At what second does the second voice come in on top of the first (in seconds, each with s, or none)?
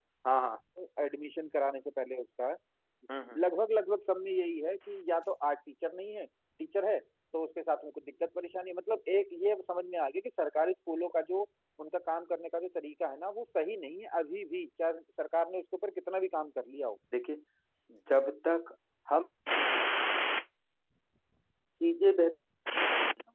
none